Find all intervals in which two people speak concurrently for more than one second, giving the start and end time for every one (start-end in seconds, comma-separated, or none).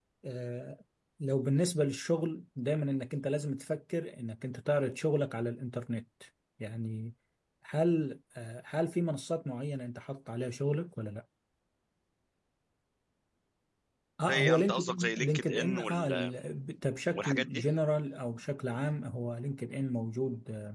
14.2-16.3